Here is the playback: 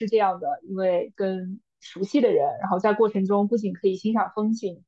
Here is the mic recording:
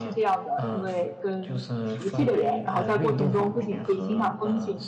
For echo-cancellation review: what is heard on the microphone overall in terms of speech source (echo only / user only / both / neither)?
both